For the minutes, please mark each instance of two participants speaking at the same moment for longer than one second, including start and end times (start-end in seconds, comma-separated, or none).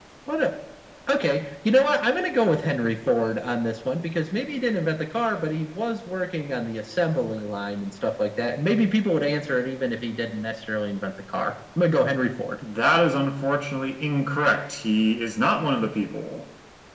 none